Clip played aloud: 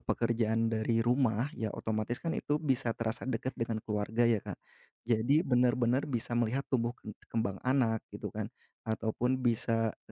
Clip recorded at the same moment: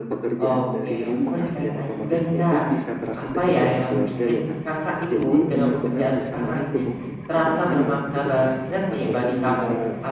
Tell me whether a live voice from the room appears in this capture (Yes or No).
Yes